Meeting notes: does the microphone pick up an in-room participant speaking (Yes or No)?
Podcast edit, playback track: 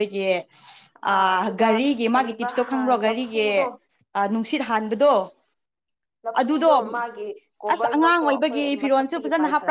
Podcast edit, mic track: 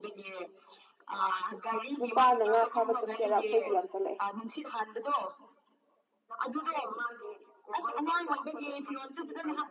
Yes